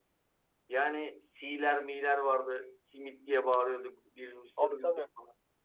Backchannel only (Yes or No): Yes